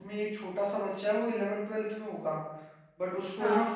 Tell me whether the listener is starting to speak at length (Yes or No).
No